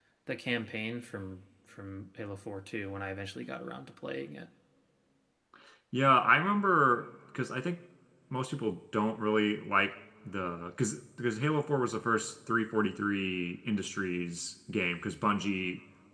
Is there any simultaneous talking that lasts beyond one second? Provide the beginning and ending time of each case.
none

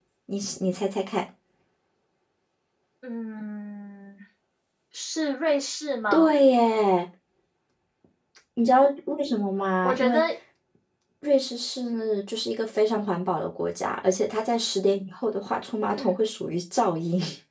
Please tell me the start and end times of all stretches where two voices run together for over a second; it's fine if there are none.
none

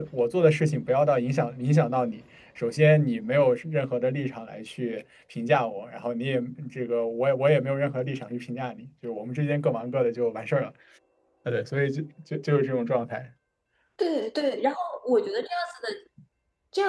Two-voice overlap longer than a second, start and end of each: none

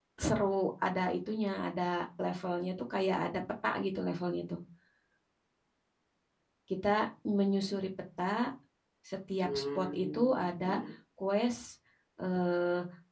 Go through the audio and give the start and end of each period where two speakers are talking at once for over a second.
9.4-10.8

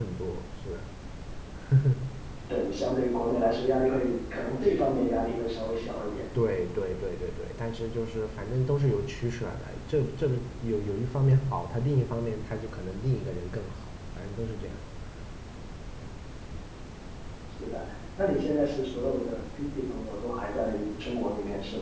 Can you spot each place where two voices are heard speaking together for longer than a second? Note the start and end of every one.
none

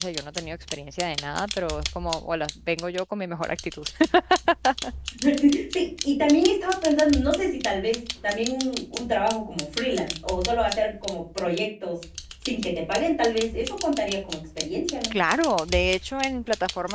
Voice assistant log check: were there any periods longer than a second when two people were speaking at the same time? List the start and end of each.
none

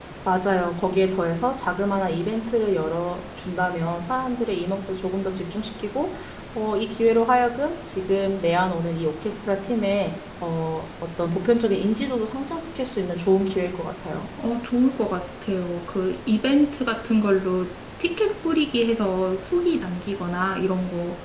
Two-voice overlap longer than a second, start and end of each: none

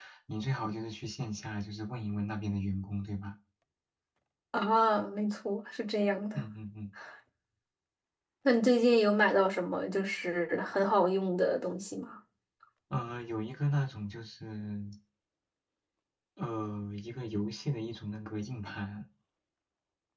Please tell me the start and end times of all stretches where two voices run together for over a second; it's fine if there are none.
none

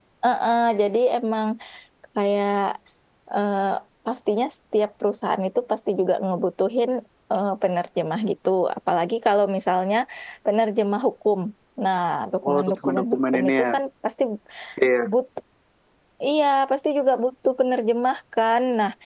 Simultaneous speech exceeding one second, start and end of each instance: 12.5-13.7

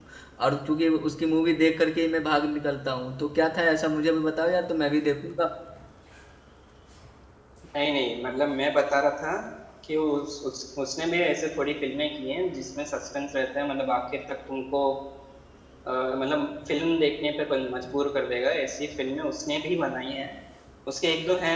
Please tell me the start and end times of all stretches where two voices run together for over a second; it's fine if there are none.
none

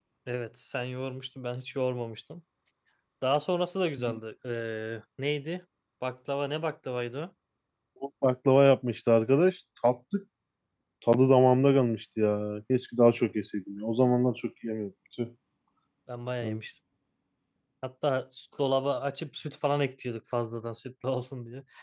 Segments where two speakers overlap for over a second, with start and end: none

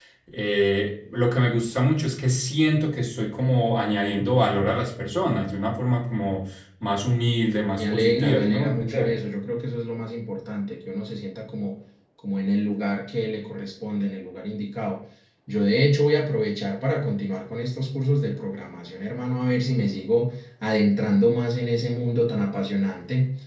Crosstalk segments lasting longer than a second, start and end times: 7.8-9.1

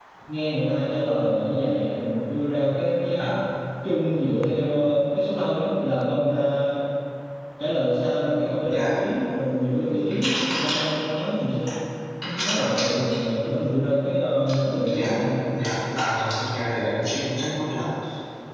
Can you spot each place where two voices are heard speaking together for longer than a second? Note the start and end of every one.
none

